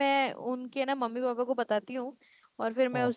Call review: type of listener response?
listening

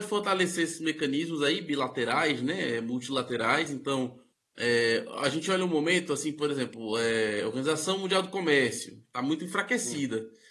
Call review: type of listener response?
listening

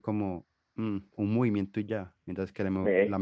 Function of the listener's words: listening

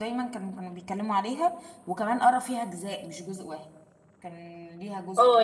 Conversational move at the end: taking over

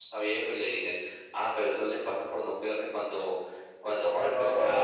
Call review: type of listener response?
listening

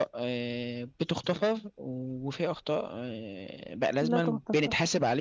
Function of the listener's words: listening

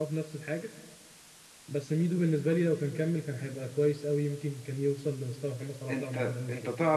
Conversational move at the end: taking over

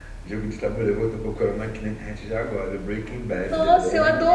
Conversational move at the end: taking over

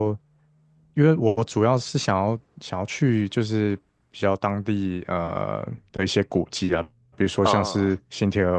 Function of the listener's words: listening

